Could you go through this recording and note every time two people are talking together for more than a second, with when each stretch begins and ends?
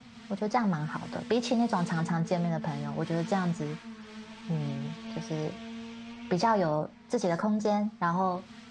none

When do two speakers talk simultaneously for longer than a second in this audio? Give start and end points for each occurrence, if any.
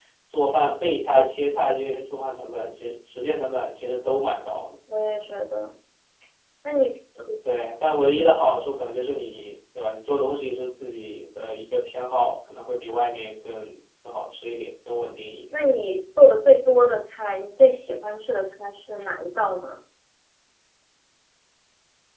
none

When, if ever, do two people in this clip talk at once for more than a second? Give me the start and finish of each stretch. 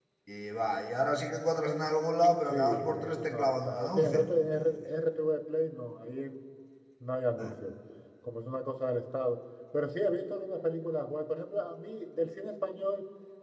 2.5-4.7

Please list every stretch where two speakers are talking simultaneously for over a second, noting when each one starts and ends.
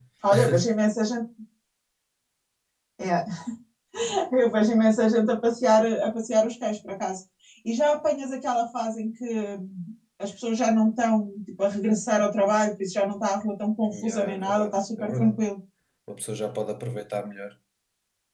13.9-15.4

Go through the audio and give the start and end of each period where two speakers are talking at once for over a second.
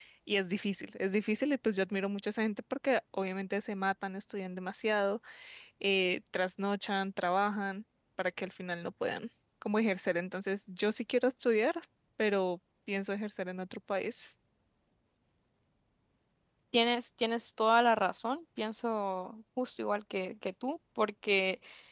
none

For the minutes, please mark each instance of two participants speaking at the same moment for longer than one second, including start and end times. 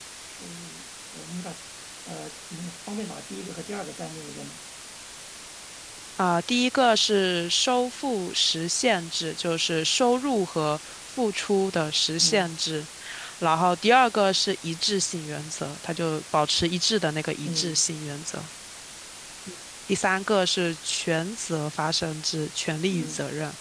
none

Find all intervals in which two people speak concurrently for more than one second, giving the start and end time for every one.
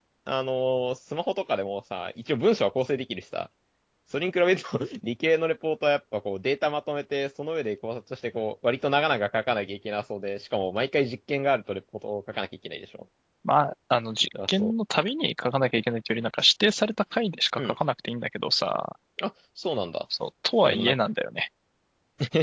none

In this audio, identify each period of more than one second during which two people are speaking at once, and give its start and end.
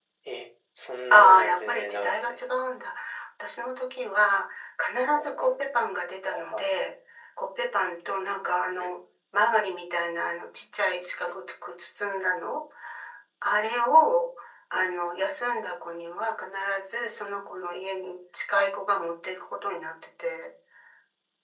1.1-2.4

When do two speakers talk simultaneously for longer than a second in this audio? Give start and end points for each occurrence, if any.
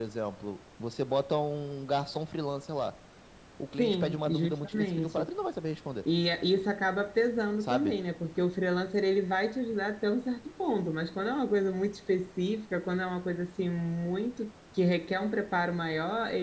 3.8-5.3

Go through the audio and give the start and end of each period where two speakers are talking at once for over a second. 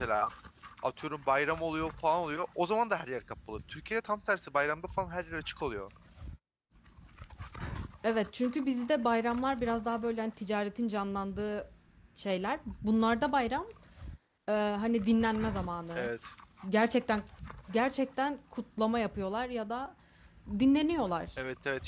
none

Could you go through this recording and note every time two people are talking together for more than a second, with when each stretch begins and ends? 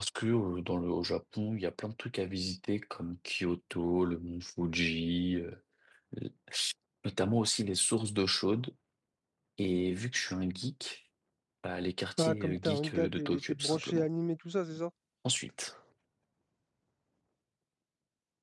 12.2-14.1

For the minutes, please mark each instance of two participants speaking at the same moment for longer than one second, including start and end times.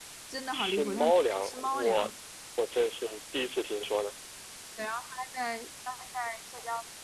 0.5-2.1

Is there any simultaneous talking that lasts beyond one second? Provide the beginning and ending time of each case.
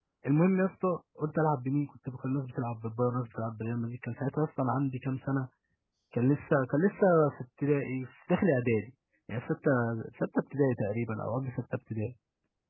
none

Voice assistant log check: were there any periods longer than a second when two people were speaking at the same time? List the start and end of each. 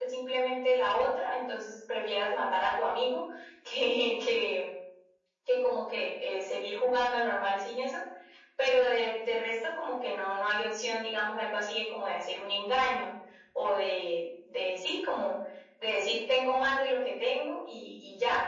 none

